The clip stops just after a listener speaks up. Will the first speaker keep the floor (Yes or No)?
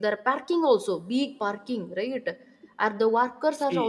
No